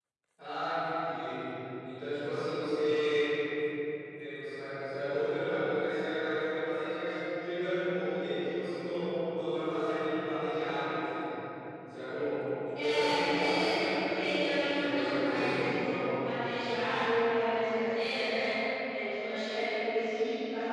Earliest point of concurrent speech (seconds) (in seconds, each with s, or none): 12.7 s